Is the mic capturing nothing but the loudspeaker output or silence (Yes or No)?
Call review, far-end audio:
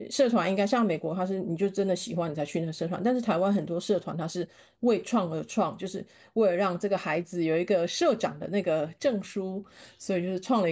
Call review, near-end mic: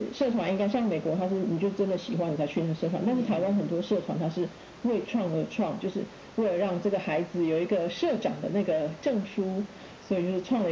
No